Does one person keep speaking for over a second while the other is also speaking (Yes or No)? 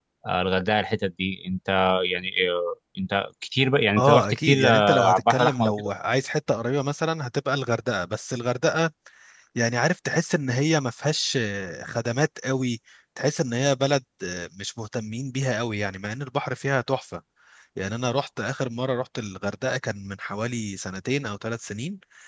Yes